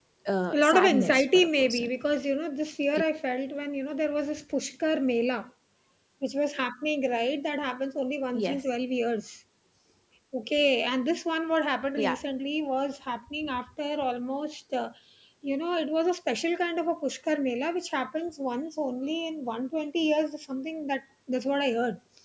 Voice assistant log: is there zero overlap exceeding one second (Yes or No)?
No